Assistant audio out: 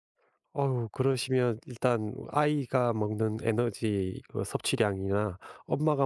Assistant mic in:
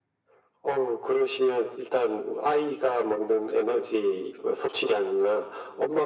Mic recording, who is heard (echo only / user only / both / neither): echo only